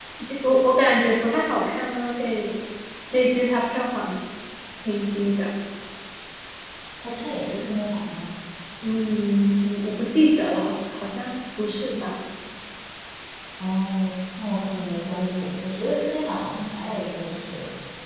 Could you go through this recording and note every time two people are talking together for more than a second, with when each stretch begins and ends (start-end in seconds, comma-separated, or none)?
none